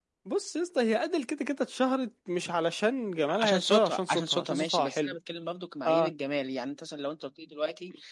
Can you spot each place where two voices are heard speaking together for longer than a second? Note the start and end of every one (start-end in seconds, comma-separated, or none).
3.3-5.2